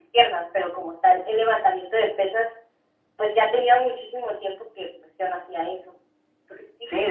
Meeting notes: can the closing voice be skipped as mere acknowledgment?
No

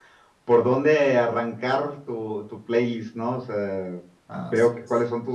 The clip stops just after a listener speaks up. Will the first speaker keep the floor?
Yes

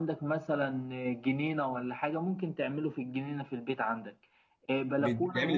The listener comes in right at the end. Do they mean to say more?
No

